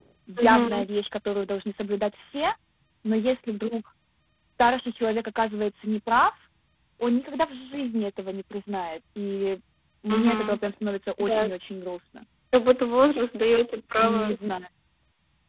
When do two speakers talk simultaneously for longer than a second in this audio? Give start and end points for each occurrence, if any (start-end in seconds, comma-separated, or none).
none